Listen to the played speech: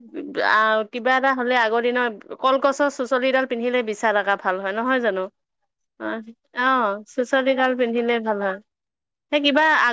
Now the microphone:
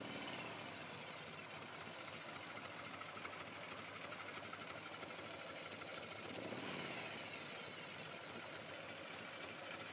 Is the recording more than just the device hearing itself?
No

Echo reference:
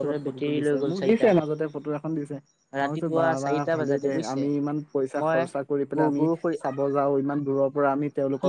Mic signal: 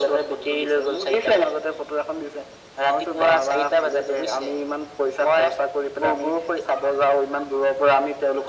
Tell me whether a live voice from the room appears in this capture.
No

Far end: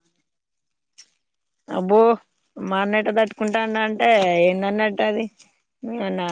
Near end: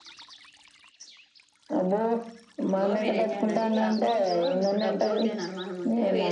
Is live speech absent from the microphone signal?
No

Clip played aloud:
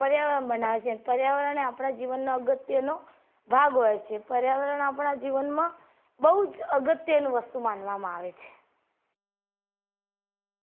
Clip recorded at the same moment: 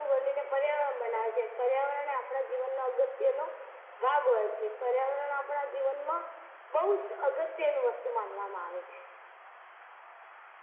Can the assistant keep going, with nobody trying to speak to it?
Yes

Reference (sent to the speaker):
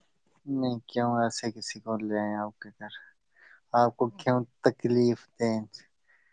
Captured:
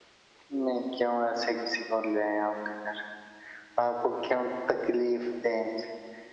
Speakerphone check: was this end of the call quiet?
Yes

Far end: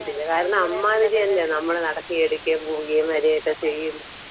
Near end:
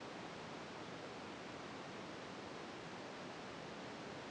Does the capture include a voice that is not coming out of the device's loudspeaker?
No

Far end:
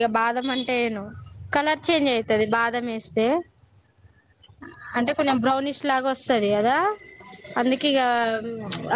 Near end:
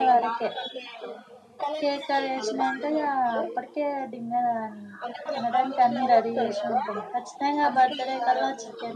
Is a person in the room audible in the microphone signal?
Yes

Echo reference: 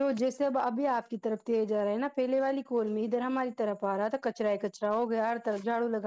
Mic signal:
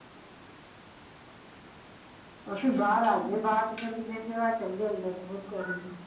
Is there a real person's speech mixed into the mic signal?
Yes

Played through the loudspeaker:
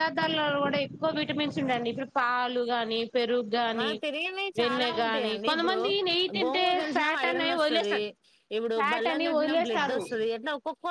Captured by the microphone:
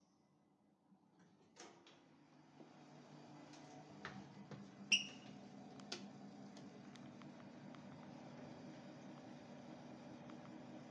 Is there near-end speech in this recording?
No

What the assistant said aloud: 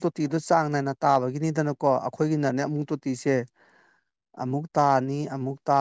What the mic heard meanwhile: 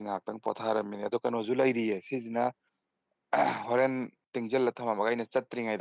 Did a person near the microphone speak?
Yes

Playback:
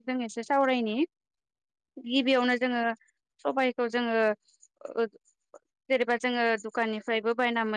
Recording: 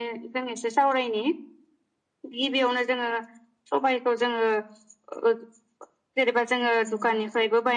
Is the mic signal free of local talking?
No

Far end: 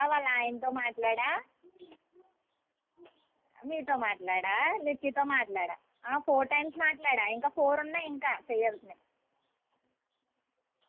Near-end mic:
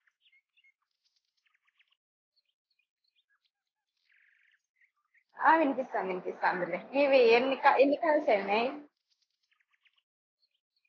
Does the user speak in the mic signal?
Yes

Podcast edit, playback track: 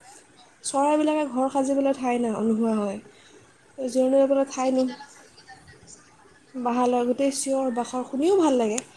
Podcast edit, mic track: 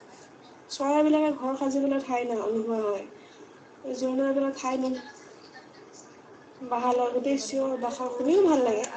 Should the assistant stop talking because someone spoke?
Yes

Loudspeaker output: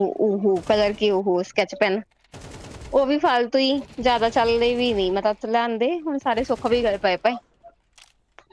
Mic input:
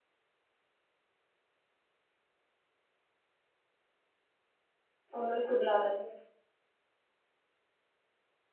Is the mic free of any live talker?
No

